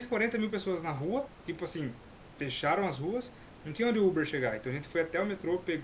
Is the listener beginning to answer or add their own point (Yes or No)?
No